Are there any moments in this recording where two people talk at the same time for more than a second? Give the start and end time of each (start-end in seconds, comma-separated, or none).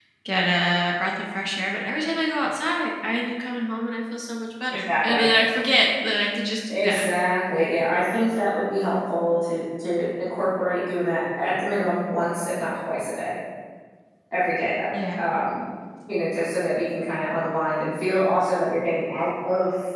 none